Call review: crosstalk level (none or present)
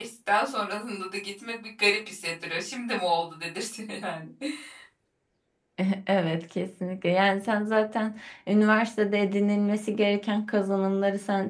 none